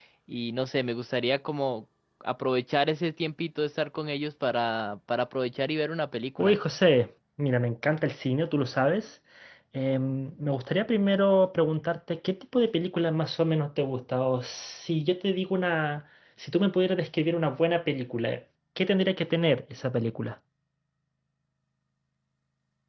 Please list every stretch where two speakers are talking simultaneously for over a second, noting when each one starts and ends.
none

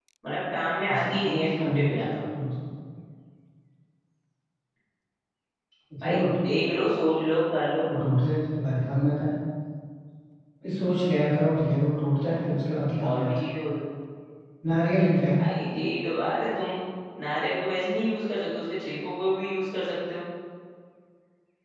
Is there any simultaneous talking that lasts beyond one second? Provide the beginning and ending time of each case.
0.9-2.2

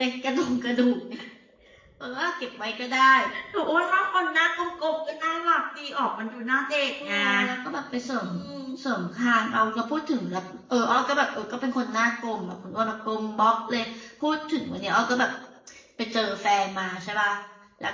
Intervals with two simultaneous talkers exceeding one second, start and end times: none

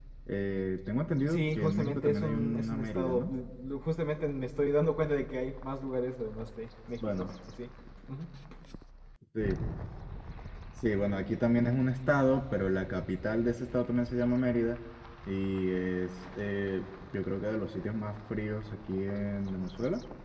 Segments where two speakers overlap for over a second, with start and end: 1.2-3.3

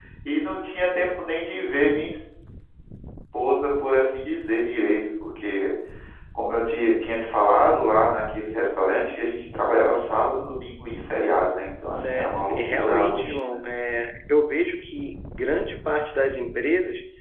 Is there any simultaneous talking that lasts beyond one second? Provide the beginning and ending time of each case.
11.9-13.6

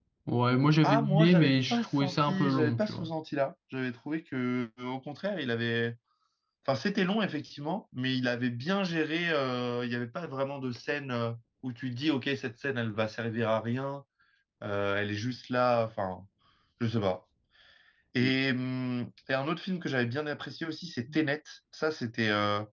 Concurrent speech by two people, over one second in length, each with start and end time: 0.8-3.1

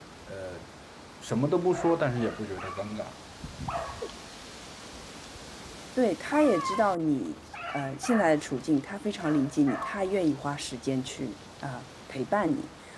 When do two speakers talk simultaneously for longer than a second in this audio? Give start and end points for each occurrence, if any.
none

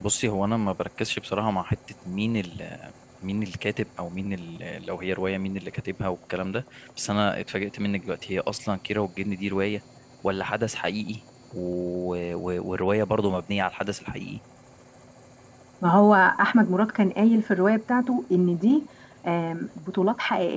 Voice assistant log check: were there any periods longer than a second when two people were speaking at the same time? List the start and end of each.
none

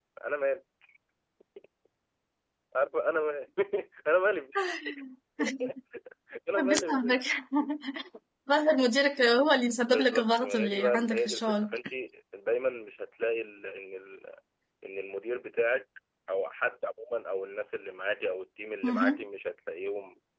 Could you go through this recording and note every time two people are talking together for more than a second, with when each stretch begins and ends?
9.9-11.7

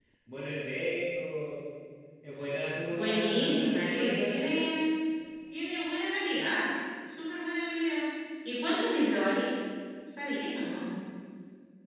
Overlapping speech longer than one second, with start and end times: 2.9-4.6

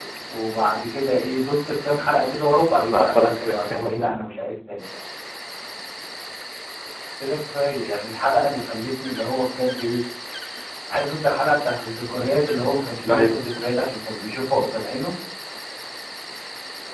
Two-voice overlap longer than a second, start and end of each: 2.9-4.2

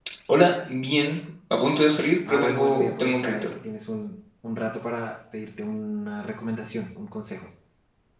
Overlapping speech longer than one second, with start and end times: 2.3-3.5

